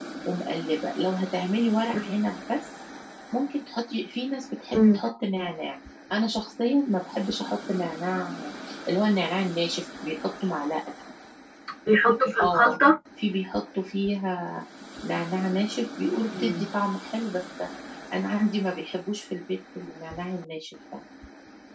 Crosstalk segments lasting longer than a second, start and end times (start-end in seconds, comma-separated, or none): none